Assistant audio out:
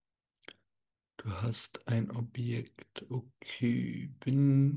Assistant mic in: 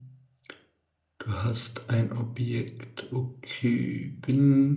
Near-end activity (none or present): none